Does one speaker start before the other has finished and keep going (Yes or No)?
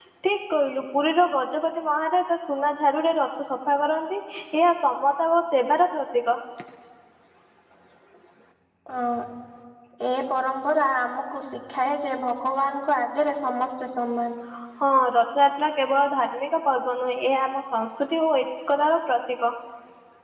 No